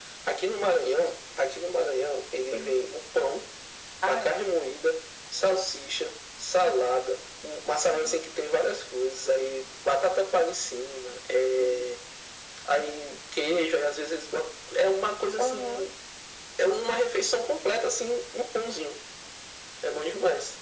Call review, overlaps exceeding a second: none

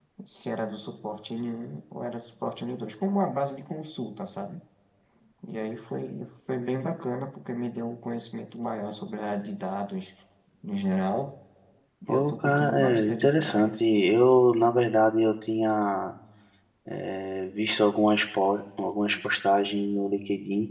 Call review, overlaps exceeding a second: present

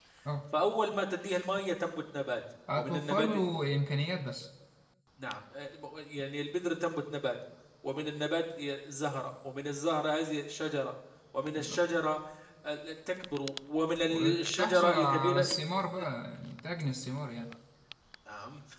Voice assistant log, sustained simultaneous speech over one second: present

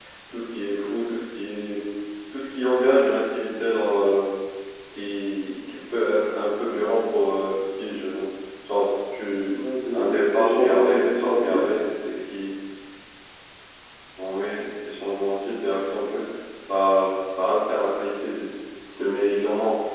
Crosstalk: present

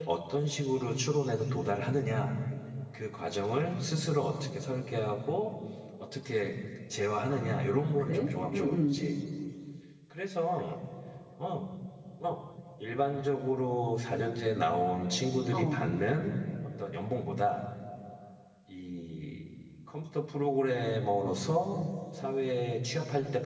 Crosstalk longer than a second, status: present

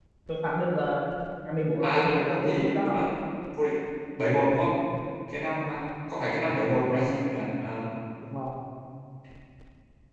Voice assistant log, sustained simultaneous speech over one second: present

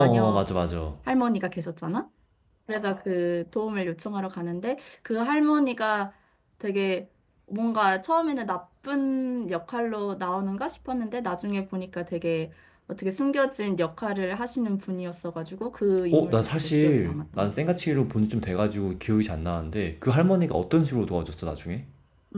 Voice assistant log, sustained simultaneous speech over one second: present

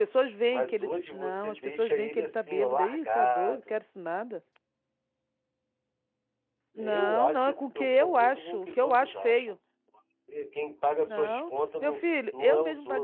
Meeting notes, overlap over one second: present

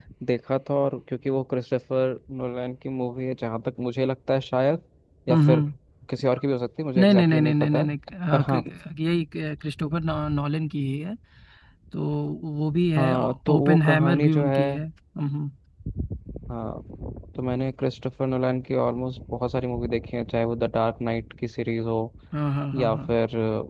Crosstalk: present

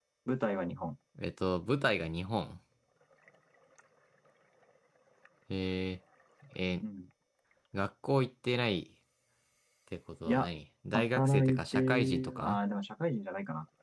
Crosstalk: present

